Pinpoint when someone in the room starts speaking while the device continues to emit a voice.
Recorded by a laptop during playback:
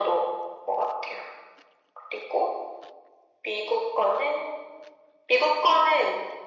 none

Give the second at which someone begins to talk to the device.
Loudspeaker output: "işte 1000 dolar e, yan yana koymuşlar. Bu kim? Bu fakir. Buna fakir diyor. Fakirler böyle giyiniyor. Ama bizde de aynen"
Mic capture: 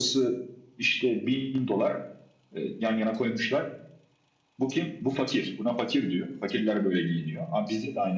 none

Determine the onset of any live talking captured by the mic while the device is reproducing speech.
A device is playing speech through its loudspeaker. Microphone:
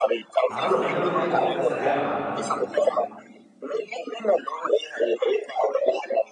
0.5 s

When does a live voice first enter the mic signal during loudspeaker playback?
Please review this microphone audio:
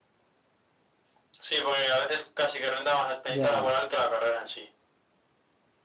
3.2 s

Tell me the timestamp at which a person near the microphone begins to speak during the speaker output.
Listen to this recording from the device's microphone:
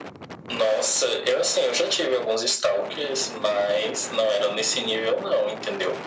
none

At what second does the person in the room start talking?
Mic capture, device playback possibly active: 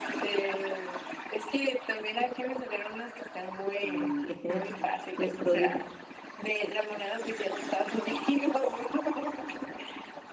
3.8 s

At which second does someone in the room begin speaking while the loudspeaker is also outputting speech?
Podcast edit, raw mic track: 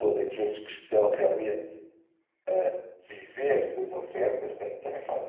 none

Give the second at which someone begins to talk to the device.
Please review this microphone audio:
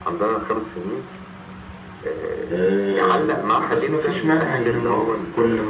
2.5 s

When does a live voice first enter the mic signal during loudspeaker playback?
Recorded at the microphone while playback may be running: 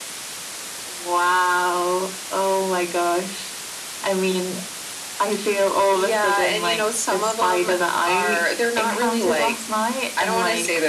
none

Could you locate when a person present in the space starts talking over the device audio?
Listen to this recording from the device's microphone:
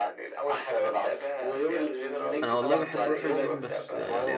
2.4 s

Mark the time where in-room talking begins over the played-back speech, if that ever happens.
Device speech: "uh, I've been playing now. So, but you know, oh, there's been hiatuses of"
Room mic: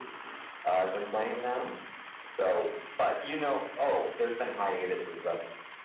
none

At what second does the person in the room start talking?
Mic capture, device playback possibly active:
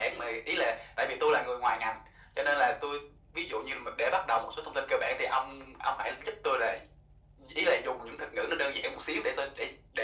none

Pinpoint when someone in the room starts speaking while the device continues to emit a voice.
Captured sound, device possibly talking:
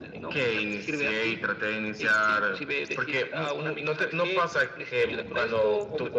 none

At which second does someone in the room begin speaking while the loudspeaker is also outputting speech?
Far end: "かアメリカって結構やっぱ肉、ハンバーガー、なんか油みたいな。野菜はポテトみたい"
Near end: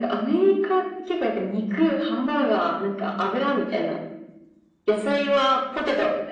none

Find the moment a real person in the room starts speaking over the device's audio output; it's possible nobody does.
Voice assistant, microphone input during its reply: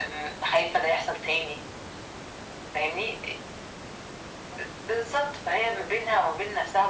none

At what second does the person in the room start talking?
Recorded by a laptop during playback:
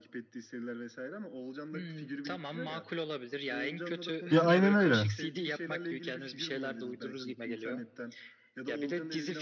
4.3 s

